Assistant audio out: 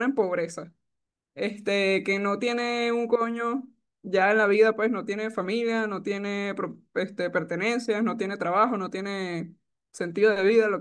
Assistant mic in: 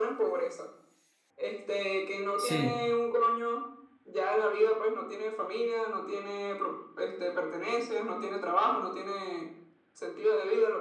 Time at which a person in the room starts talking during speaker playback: 2 s

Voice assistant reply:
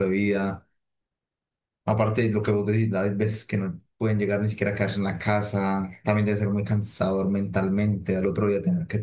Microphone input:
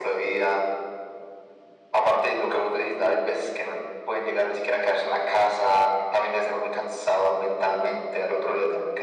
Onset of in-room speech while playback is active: none

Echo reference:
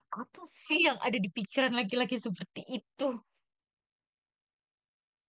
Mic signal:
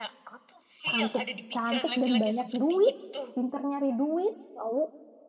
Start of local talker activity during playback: 1 s

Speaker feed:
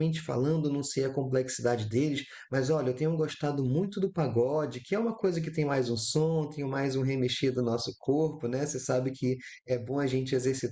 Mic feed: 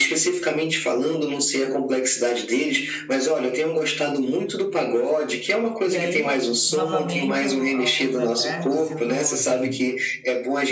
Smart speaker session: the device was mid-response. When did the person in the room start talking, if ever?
6 s

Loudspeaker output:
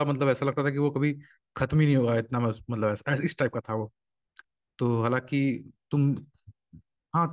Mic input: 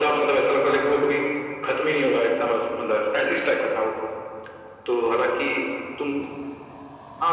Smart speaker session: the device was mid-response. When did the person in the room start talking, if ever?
1 s

